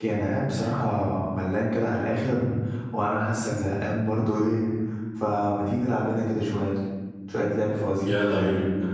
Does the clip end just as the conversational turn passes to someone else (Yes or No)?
Yes